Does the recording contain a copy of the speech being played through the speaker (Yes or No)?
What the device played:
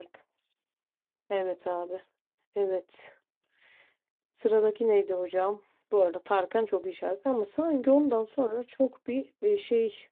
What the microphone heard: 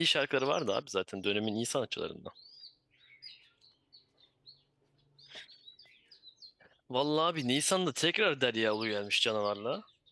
No